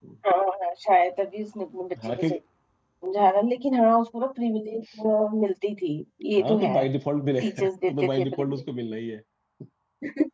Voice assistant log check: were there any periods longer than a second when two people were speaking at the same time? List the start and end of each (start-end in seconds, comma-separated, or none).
7.4-8.6